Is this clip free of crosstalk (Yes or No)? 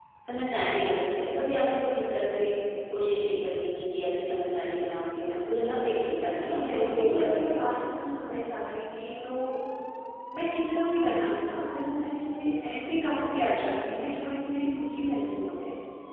No